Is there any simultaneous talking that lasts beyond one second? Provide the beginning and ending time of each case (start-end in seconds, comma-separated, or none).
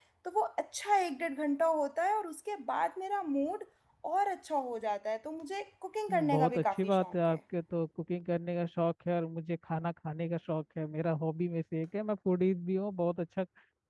6.1-7.4